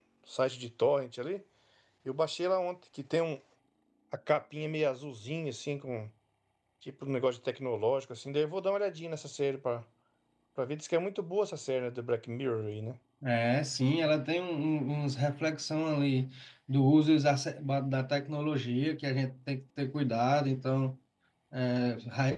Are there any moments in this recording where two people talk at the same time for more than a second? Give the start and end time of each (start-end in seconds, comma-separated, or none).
none